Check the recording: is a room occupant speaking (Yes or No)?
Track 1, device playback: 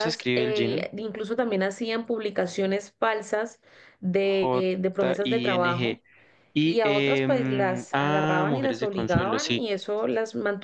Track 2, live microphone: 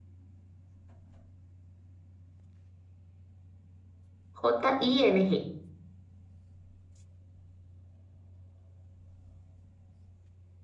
Yes